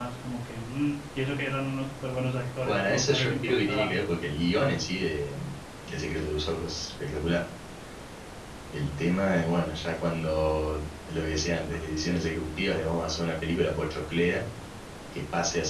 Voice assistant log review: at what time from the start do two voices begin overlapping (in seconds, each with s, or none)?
2.6 s